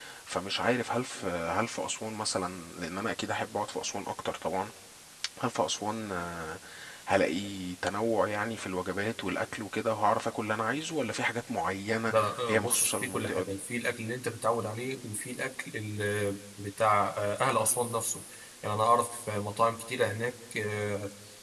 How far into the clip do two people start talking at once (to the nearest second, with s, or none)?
12 s